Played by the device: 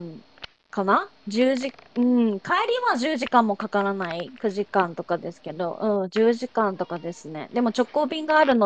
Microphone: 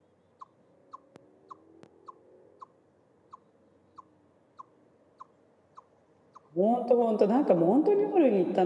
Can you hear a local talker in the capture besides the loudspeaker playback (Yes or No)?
Yes